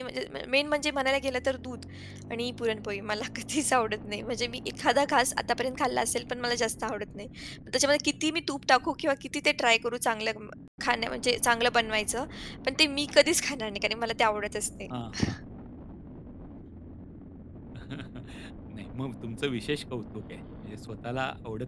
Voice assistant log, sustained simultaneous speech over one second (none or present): none